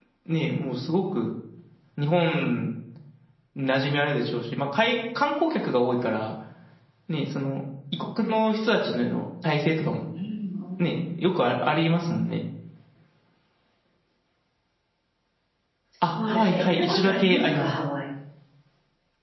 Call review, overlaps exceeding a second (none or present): present